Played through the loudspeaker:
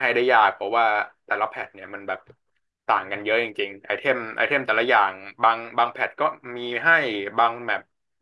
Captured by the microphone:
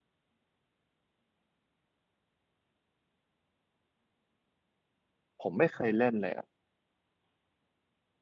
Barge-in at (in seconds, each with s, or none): 5.4 s